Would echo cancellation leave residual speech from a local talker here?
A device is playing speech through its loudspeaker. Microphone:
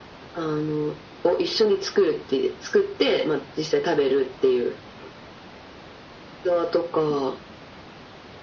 No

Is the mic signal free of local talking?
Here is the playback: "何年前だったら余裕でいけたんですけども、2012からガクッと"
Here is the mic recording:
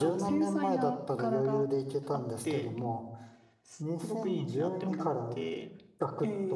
No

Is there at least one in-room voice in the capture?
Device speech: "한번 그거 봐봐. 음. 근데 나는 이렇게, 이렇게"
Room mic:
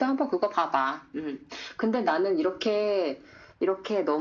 No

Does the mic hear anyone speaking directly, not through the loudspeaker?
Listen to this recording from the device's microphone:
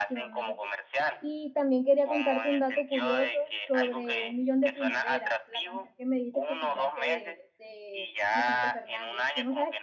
Yes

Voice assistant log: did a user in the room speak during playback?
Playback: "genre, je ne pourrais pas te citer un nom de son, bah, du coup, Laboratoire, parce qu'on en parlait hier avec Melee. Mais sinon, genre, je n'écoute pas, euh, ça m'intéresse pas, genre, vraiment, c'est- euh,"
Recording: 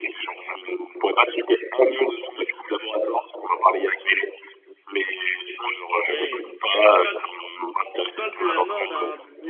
Yes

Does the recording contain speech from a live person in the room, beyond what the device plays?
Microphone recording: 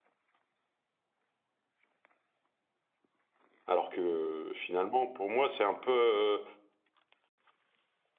Yes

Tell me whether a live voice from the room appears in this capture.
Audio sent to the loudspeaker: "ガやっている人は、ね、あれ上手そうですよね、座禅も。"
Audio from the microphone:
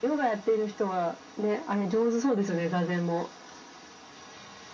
No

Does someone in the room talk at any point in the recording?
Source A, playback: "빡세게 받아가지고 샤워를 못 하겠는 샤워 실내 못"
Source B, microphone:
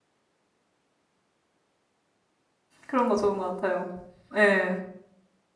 Yes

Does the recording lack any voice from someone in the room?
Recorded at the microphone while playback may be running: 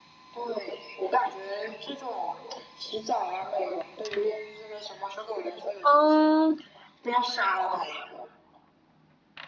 No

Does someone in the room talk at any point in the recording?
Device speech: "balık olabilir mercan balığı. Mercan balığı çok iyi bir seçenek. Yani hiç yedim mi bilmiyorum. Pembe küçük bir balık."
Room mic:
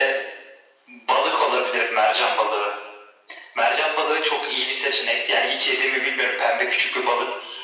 No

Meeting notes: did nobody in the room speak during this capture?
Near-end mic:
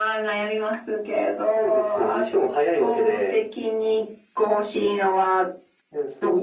Yes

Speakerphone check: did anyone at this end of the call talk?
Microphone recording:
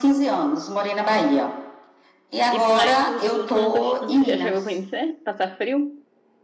Yes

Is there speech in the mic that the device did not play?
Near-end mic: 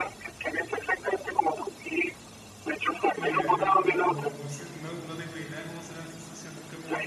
Yes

